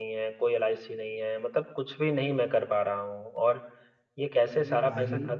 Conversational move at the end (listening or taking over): listening